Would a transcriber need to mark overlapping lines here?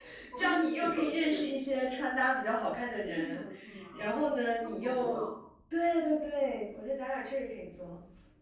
Yes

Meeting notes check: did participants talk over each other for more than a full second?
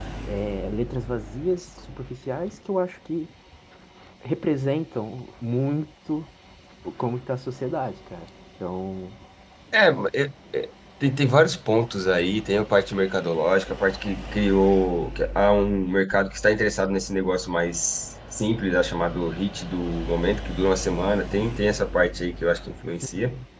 No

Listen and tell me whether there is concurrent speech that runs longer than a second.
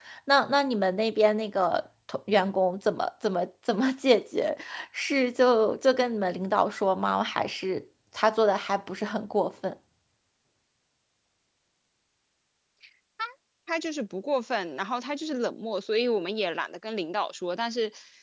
No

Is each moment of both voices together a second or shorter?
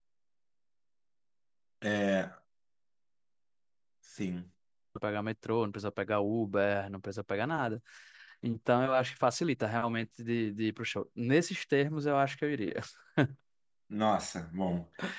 Yes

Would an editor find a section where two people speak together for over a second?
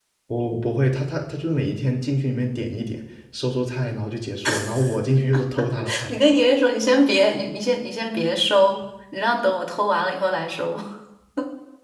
No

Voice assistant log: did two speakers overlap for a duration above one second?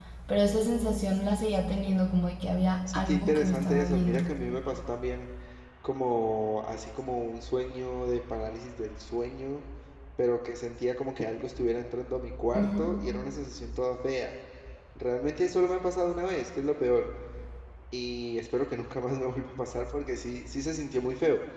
Yes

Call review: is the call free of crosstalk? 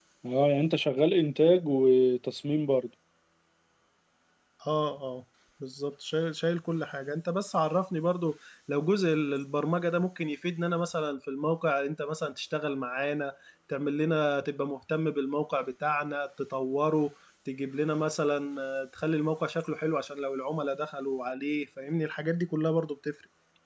Yes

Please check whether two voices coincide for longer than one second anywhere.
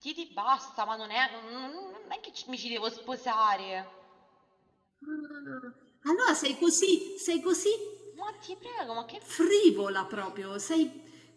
No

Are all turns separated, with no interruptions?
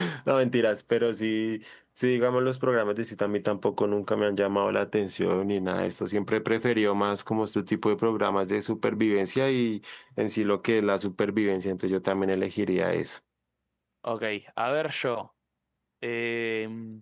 Yes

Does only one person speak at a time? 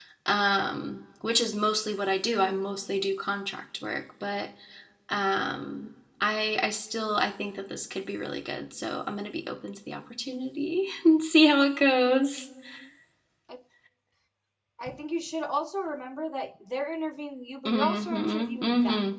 No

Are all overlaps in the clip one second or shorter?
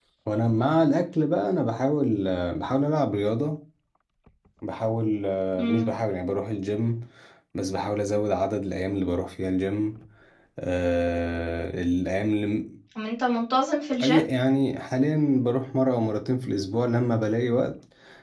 Yes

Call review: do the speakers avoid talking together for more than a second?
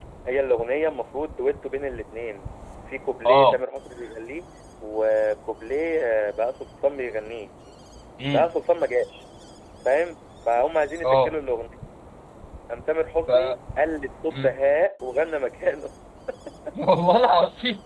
Yes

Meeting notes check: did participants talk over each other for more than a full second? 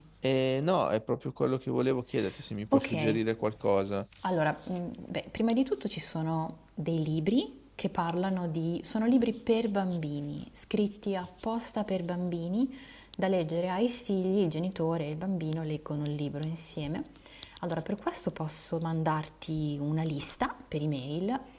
No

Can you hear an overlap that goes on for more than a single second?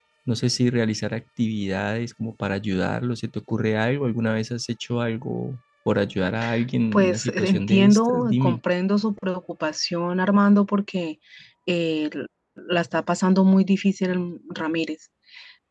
Yes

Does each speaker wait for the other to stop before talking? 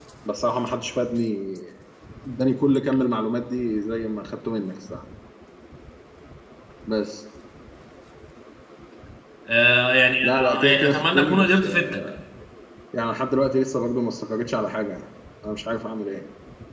No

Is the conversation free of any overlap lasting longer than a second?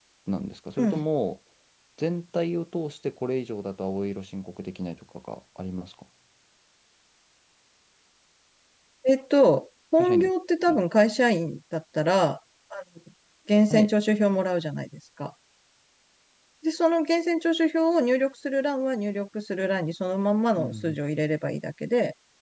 Yes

